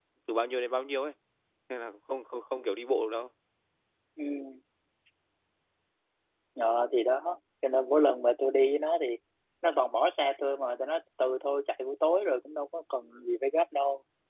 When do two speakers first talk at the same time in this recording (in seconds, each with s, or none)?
none